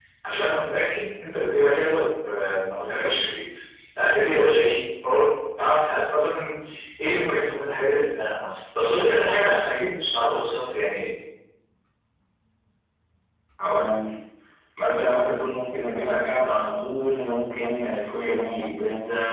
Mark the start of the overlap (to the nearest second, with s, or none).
none